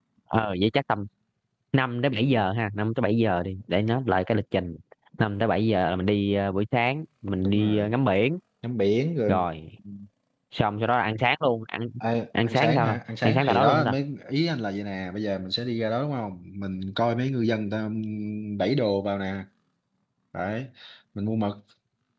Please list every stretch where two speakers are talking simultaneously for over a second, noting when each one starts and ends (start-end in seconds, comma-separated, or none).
12.4-14.0